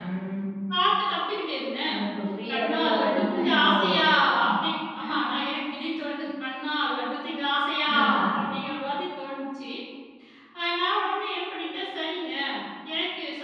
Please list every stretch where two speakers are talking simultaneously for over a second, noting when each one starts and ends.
2.5-4.0

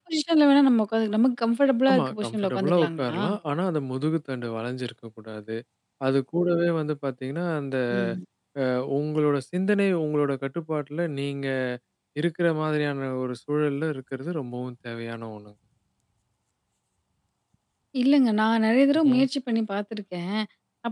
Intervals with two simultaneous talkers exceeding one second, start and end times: 1.9-3.2

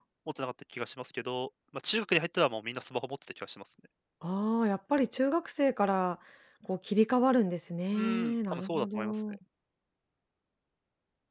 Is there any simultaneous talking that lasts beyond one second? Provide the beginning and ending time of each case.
7.9-9.2

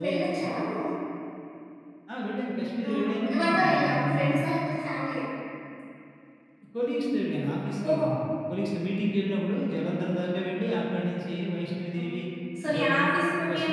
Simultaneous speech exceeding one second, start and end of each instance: 2.9-4.2

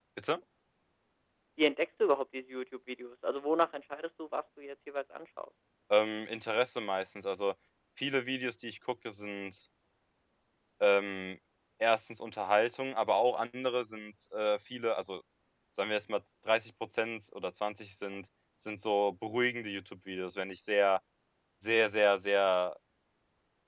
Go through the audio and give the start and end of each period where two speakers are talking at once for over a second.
none

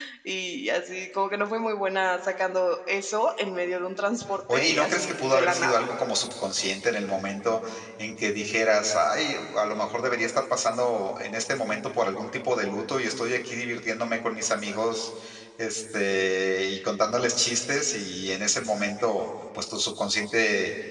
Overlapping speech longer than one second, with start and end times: 4.5-5.9

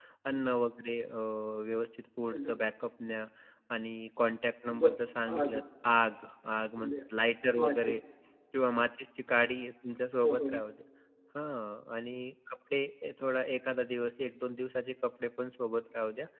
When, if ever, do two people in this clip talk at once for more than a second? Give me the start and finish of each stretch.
none

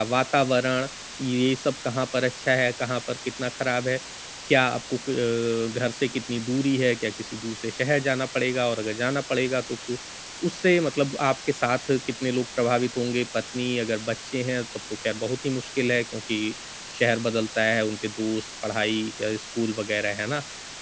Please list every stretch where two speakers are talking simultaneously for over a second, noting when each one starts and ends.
none

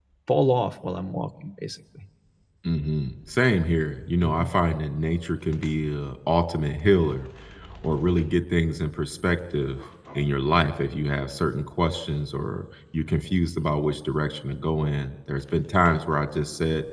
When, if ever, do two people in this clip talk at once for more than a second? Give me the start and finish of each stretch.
none

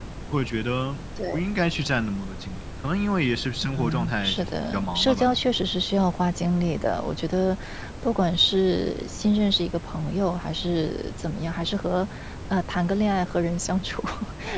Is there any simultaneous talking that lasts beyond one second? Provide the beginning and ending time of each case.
3.8-5.4

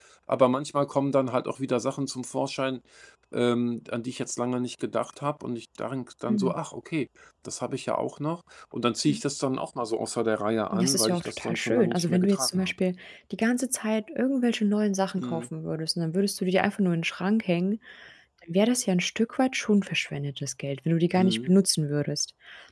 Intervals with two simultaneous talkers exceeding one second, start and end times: 10.7-12.7

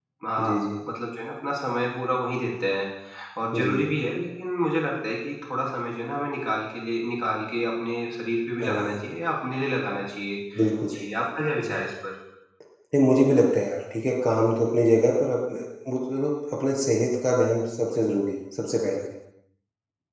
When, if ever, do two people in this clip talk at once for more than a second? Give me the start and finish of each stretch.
none

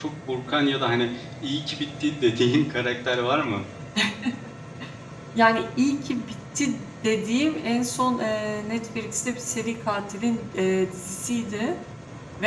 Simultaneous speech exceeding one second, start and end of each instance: none

